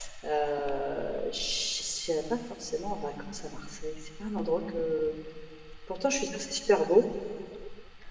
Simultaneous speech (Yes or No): No